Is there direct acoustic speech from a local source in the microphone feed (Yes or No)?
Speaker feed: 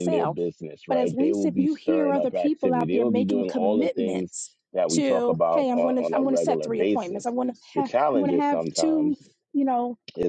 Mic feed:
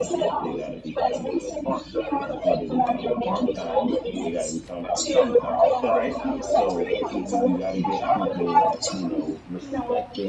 Yes